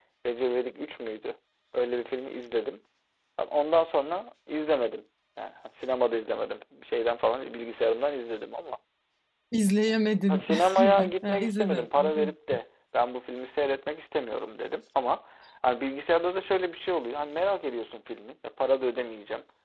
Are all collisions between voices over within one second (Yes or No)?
No